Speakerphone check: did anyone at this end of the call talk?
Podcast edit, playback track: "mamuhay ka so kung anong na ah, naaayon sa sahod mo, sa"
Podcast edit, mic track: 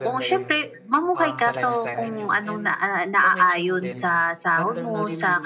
Yes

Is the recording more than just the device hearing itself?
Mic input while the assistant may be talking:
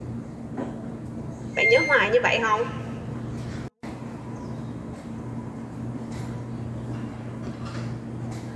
Yes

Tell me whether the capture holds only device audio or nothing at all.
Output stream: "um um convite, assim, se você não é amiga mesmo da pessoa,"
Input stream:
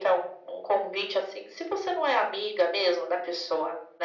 Yes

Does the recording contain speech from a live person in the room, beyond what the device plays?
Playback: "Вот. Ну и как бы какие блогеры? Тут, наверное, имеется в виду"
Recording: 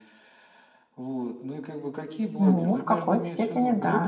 Yes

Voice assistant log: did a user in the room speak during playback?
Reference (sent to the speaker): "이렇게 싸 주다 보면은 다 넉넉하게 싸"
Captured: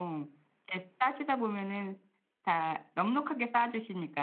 No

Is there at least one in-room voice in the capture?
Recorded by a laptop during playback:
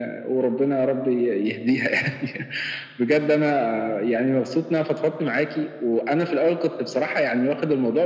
No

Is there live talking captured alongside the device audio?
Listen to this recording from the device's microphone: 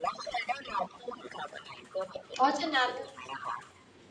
Yes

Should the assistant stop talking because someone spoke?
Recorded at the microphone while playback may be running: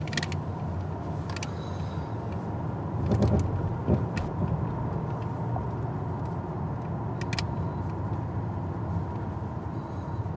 No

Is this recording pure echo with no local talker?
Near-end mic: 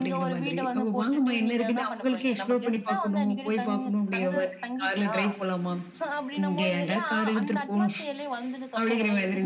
No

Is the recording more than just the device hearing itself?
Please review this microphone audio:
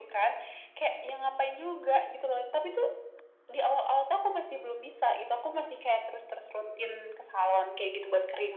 No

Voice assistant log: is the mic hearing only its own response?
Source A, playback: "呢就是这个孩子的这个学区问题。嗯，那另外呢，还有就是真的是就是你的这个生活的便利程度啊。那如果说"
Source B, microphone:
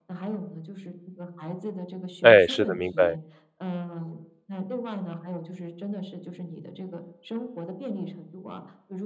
No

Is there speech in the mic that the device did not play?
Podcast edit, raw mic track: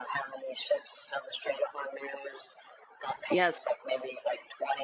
Yes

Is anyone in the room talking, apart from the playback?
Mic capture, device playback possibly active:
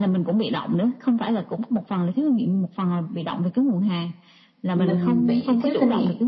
Yes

